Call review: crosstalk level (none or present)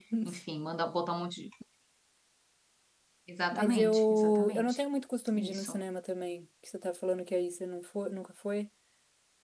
present